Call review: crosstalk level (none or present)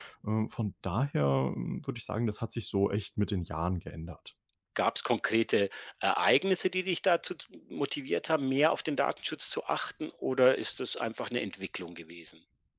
none